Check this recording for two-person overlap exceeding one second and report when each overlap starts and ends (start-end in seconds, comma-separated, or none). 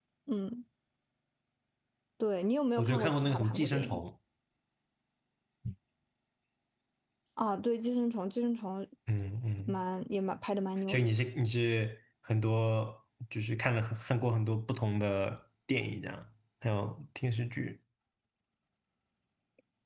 2.8-4.0